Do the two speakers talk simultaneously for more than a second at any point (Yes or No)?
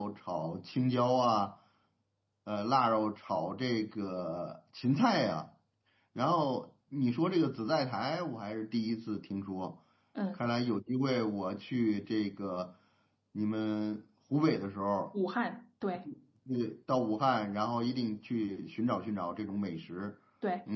No